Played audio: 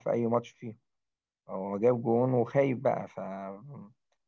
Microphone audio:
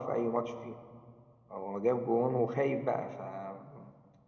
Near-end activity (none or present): none